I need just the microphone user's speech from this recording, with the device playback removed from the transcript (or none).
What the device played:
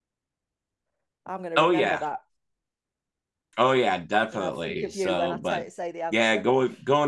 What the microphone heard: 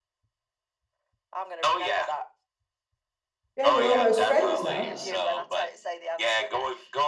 Yeah, we're almost friends now.